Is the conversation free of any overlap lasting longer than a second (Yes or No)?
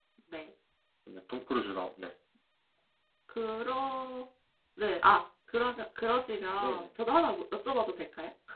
Yes